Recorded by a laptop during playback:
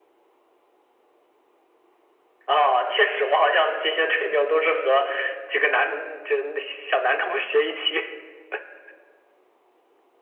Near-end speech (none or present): none